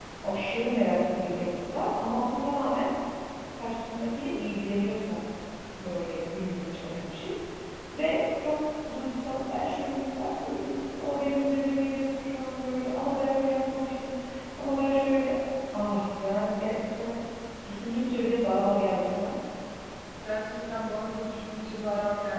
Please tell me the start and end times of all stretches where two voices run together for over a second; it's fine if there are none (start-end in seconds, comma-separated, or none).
none